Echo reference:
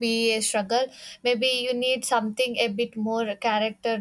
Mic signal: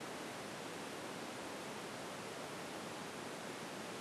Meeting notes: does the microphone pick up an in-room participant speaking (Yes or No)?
No